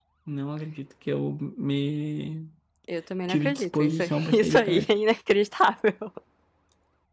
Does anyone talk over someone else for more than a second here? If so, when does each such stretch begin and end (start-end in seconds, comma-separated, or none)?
3.3-4.9